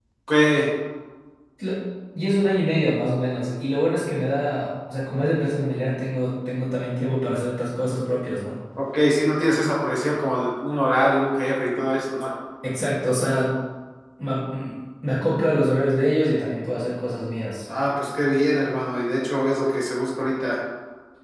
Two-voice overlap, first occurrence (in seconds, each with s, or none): none